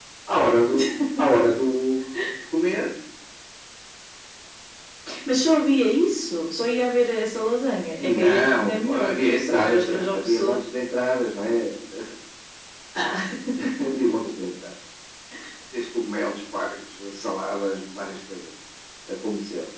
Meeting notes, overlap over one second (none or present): present